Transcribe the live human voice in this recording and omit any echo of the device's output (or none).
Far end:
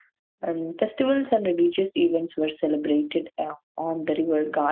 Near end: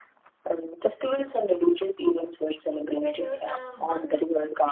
Whether uh, one